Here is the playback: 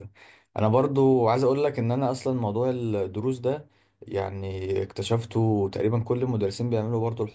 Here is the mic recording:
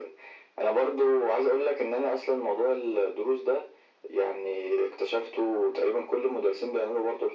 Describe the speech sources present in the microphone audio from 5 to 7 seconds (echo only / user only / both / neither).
echo only